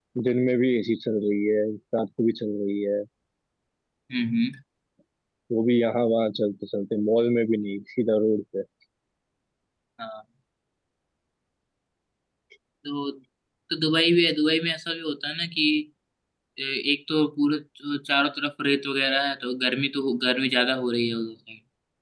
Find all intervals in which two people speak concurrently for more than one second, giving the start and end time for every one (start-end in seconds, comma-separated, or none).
none